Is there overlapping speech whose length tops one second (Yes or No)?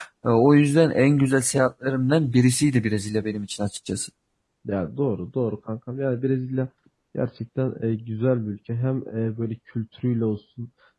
No